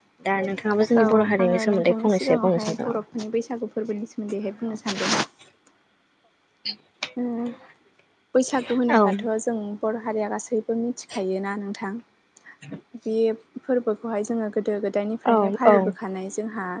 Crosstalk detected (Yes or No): Yes